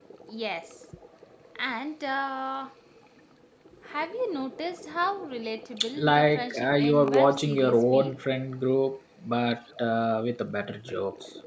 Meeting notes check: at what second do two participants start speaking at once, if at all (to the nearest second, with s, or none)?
6 s